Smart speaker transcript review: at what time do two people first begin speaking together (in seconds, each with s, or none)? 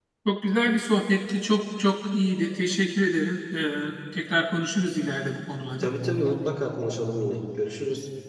none